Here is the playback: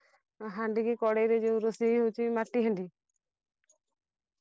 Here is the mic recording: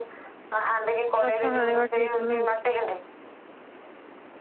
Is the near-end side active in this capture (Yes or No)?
Yes